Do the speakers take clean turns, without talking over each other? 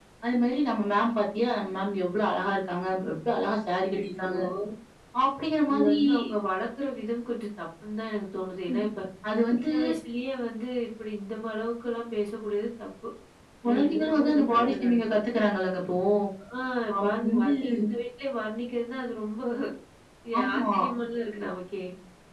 No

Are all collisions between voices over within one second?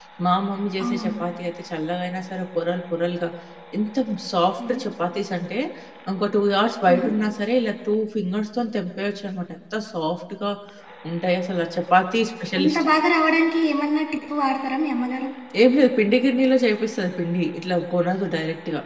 Yes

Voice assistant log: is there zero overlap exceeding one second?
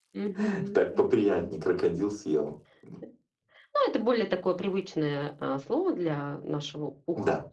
Yes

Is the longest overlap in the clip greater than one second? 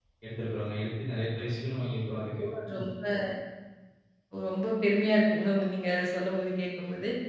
No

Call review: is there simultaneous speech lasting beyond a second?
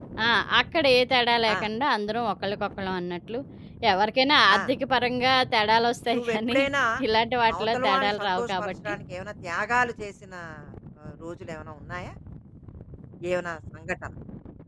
Yes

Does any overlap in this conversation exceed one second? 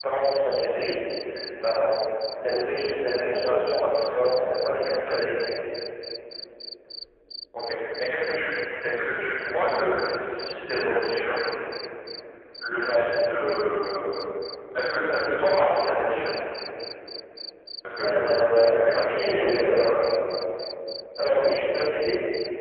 Yes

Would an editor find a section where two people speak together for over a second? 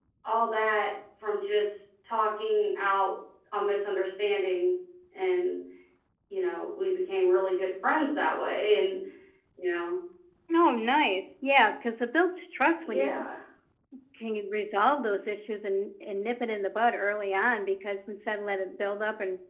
No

